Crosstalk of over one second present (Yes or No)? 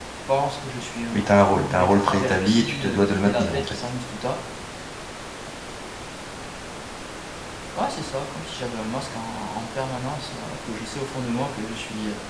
Yes